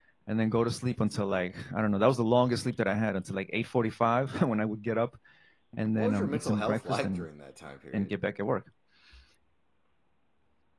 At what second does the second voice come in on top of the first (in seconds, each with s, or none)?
5.9 s